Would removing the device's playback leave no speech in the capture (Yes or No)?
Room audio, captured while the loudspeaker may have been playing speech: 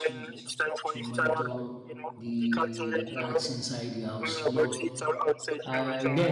No